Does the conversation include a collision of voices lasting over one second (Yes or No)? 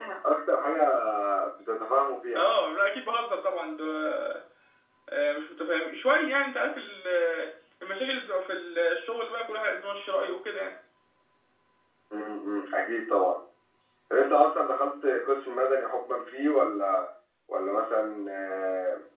No